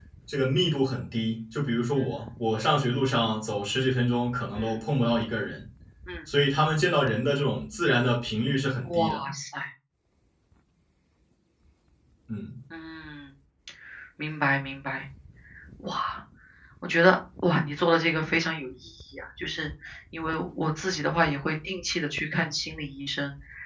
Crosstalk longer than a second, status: none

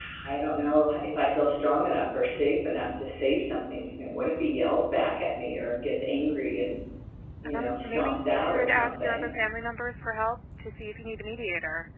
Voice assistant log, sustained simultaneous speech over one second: present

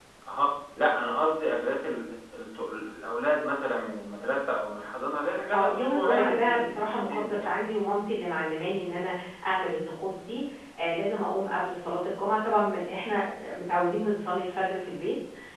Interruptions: present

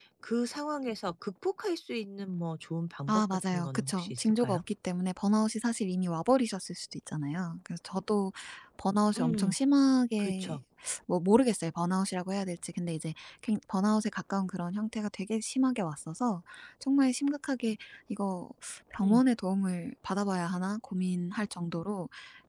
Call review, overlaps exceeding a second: present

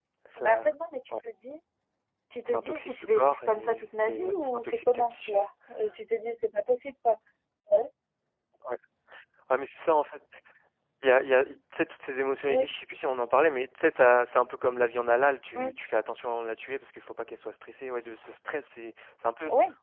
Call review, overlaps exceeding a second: present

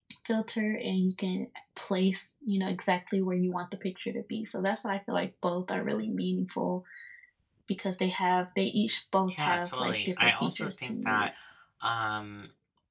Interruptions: present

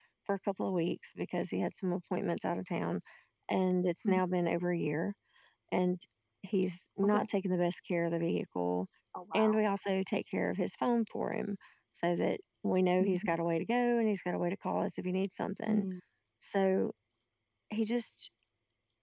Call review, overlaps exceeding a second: none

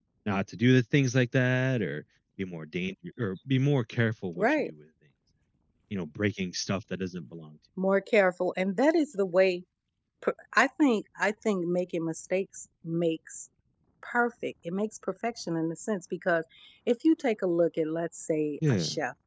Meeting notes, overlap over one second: none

